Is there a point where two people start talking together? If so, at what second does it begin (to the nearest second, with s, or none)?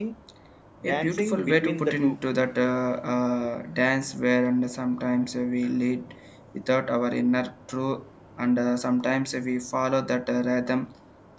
1 s